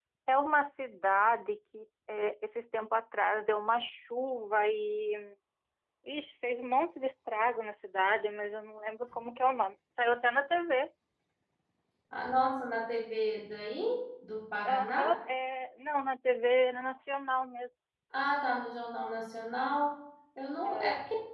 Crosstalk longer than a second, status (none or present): none